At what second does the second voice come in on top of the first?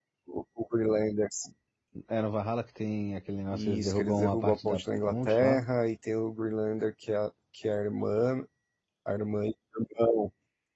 3.5 s

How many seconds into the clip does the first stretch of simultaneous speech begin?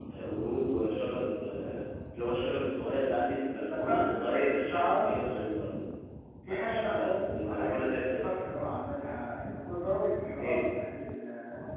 3.7 s

